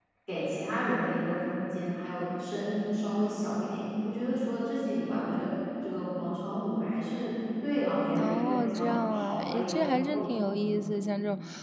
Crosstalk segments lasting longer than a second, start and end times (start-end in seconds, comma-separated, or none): 8.2-10.9